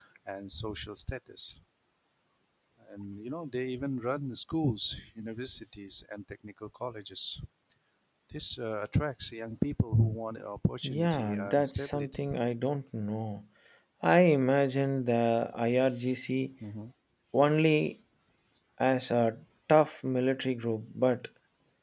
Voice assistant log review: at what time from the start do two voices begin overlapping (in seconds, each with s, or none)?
10.8 s